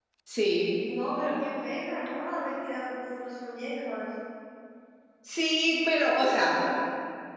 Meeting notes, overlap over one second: none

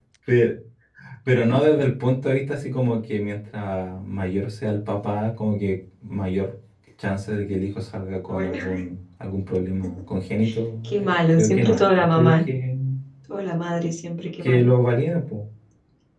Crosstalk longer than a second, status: present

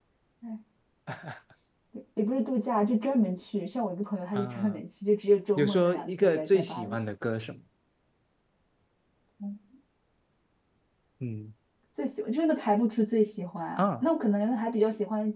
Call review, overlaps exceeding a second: present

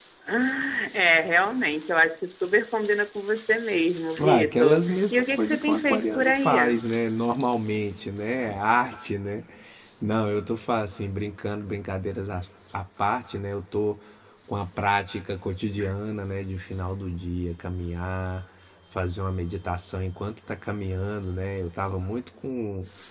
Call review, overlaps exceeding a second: present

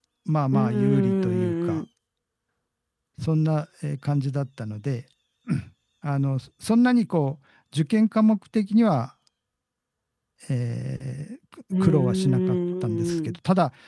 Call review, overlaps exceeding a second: present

